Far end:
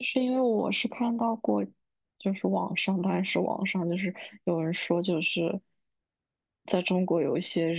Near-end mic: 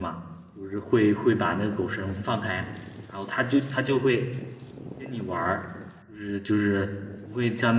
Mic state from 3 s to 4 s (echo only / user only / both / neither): user only